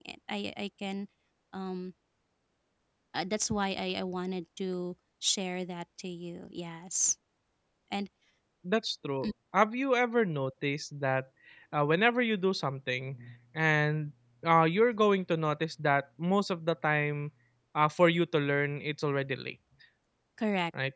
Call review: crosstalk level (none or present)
none